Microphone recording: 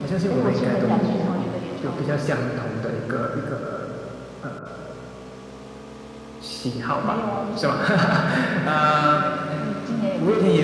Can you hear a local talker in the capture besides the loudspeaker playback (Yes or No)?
Yes